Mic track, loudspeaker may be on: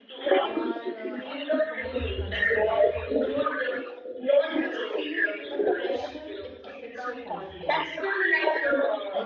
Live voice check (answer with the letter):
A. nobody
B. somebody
B